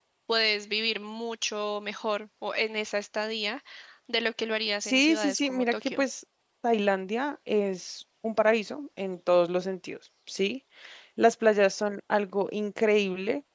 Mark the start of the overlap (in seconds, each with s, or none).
4.8 s